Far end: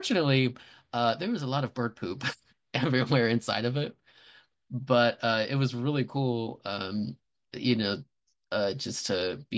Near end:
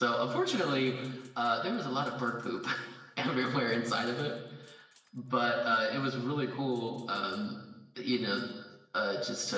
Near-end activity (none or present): none